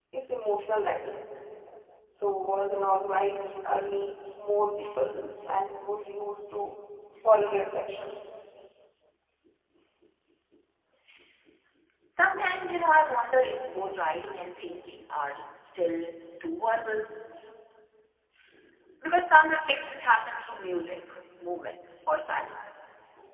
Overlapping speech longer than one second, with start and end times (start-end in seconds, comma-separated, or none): none